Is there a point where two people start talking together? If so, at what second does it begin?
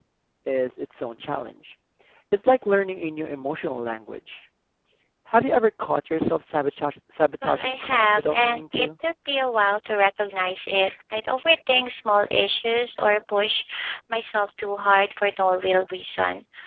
7.4 s

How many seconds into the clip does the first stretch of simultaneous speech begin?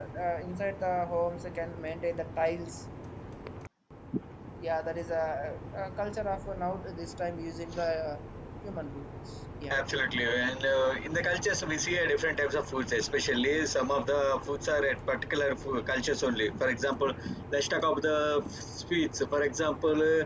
none

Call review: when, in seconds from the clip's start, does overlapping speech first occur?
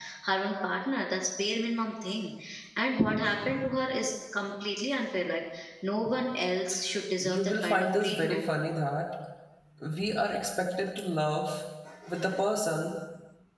7.2 s

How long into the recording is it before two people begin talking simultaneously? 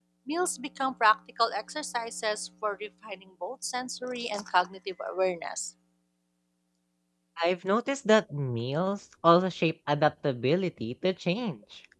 none

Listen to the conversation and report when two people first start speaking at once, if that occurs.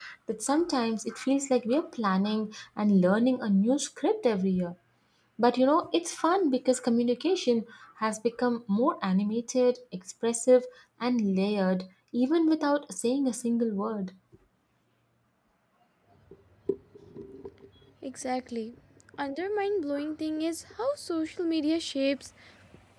none

